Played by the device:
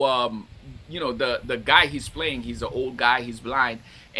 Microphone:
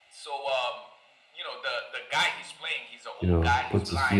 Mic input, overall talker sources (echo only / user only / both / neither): both